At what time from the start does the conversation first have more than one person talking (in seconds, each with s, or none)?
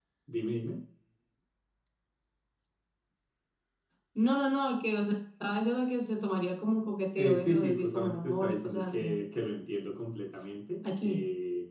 7.2 s